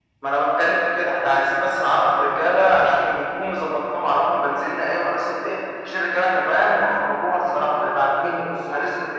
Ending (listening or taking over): listening